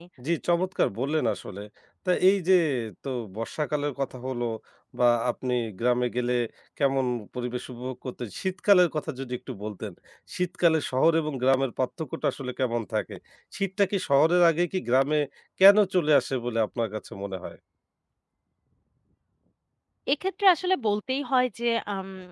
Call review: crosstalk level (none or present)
none